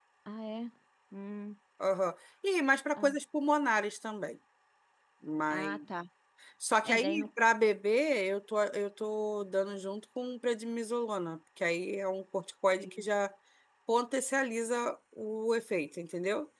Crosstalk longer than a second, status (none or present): none